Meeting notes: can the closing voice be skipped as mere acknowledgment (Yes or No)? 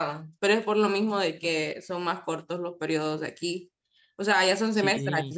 Yes